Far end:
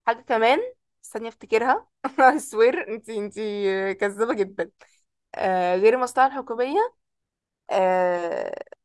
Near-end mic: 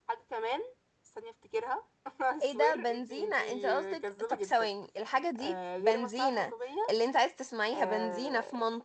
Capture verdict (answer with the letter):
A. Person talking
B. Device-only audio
A